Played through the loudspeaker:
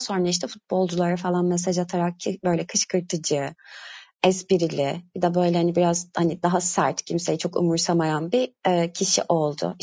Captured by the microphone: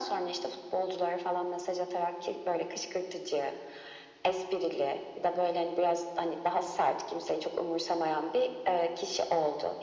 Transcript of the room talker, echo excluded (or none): none